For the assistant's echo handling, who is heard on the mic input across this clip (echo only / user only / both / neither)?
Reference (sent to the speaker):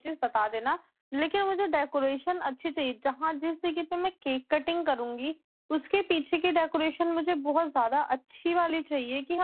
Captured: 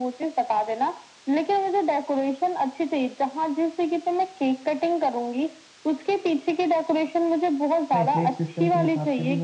both